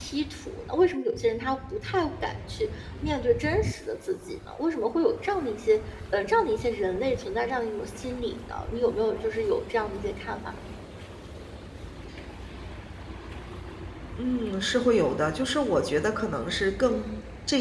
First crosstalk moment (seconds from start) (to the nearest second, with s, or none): none